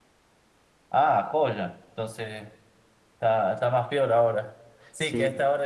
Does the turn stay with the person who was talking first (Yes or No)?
Yes